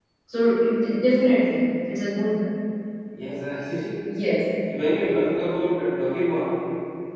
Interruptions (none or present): none